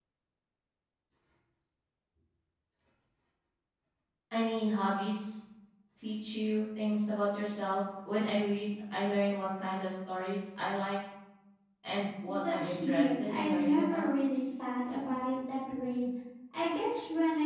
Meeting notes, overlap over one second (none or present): present